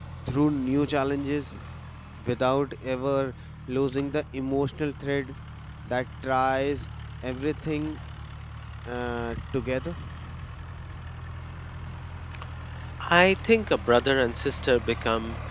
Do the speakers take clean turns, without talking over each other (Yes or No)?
Yes